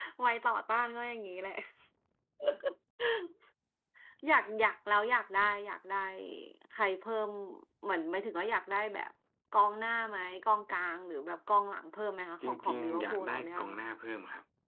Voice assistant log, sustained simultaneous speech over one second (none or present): present